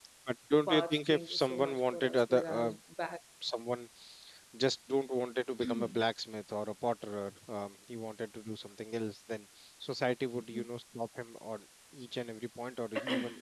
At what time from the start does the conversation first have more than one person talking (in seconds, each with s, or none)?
0.7 s